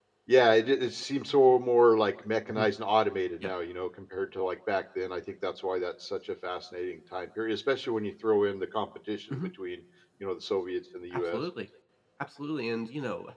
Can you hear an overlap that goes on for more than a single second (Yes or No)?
No